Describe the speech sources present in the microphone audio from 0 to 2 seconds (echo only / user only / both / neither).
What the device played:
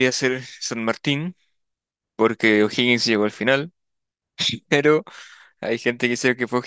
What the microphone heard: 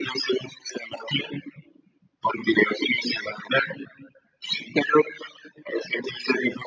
echo only